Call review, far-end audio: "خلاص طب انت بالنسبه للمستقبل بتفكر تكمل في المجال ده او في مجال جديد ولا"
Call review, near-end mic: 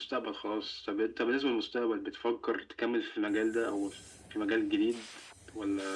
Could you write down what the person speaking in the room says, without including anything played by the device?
none

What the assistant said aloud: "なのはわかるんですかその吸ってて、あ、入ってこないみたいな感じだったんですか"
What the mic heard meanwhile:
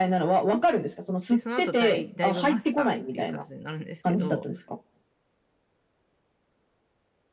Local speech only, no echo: で、その後ダイ、ダイブマスターっていう形になるんですけど、

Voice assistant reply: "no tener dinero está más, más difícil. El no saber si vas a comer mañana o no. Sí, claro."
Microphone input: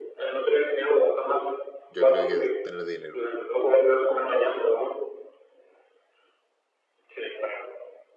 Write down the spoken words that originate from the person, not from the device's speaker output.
yo creo que tener dinero,

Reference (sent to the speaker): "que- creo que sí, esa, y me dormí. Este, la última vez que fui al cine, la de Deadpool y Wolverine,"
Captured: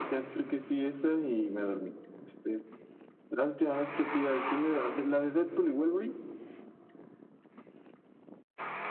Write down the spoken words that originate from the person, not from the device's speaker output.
none

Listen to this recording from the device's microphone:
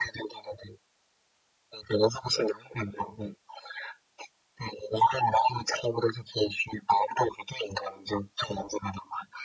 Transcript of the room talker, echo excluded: none

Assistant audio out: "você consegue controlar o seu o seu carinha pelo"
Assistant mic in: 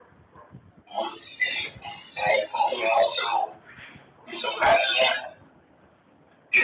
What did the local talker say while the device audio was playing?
none

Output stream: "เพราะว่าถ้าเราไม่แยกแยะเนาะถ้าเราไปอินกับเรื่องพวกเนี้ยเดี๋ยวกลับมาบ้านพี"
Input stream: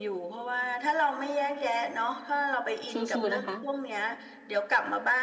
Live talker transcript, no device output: สู้ๆนะคะ

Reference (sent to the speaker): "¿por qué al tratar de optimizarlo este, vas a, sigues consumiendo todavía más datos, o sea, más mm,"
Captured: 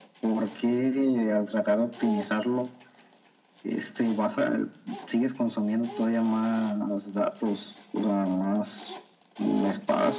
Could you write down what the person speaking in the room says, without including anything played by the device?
none

